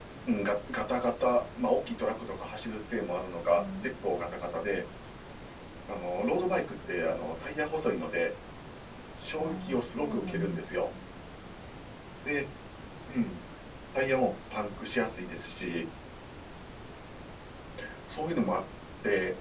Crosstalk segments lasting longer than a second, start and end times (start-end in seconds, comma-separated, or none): 9.4-10.6